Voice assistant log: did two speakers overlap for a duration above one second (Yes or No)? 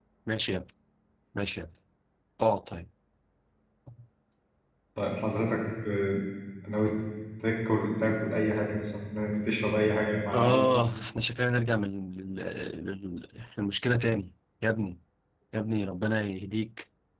No